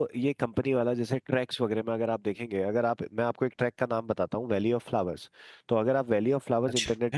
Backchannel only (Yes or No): Yes